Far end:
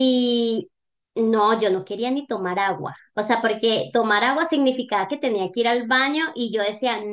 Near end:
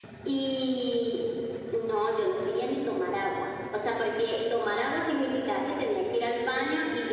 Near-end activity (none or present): none